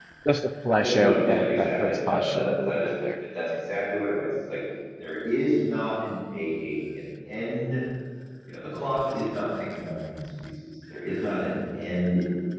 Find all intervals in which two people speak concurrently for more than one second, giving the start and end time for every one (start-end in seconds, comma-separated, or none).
0.8-3.1